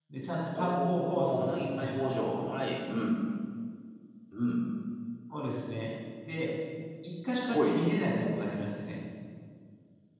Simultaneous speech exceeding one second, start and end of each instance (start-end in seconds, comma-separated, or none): 0.6-2.0